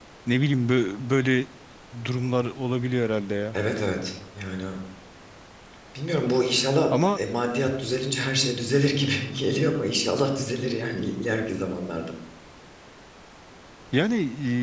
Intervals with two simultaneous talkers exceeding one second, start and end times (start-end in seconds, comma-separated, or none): none